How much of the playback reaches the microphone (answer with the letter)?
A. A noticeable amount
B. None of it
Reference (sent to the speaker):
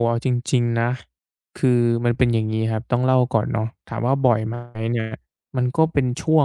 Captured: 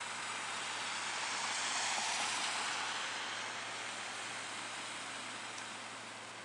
B